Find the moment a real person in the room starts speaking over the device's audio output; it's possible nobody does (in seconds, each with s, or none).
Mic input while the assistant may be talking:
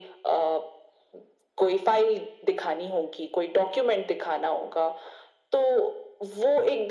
none